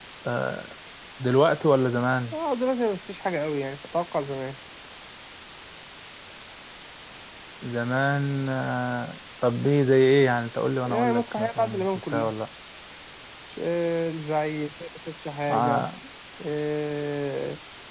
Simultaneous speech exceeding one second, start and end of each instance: 10.9-12.3

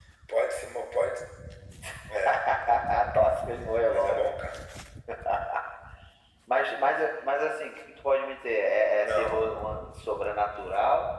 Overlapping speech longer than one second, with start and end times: none

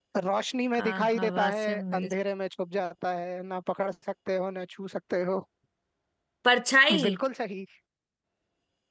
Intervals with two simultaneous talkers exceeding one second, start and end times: 0.8-2.1

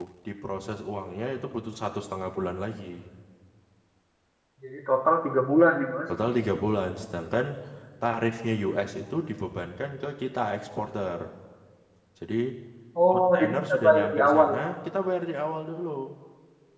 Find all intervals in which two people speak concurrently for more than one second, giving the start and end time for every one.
13.1-14.6

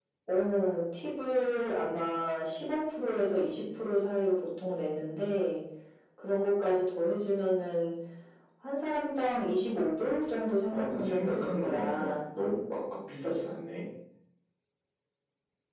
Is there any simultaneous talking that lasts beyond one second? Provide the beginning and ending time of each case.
10.7-12.1

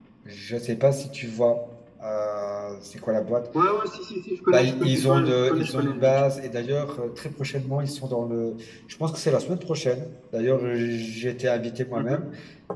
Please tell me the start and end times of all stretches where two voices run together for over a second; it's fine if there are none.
4.5-6.2

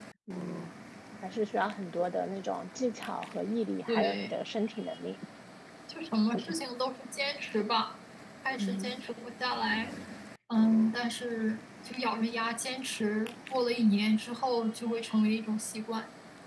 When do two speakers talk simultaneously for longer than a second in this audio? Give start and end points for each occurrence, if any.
none

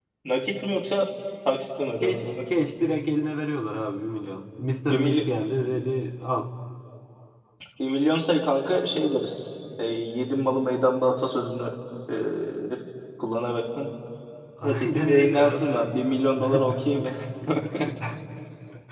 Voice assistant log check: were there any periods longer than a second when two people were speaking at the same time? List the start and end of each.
14.6-15.9

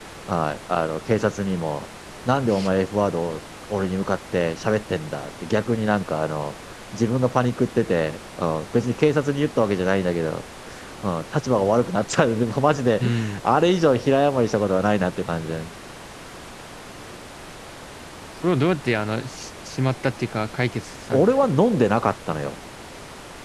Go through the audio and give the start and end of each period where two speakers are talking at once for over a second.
none

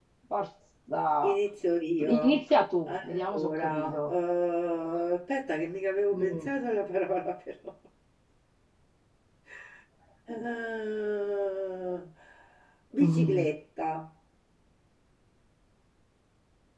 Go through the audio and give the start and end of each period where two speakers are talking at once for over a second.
2.9-4.1

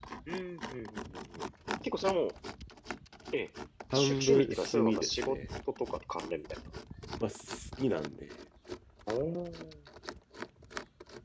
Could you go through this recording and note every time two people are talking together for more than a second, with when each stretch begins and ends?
3.9-5.4

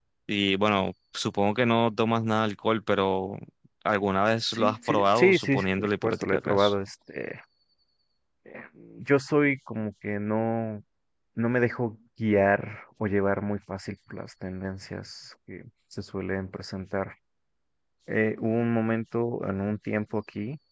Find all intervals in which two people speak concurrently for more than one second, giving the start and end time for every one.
4.5-6.7

